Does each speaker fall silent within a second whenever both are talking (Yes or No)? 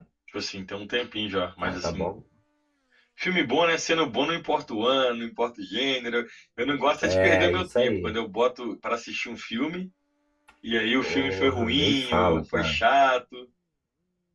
No